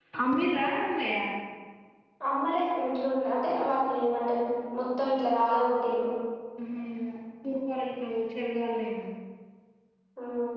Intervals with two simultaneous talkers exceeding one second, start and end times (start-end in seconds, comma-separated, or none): none